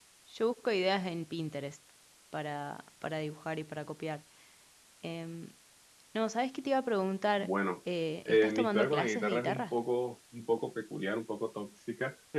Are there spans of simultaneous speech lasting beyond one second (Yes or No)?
Yes